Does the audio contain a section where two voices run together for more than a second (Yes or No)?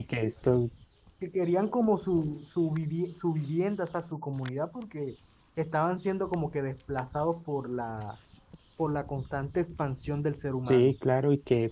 No